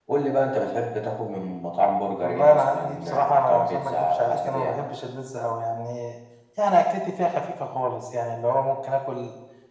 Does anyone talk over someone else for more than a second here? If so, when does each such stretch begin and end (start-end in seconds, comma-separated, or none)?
2.2-4.8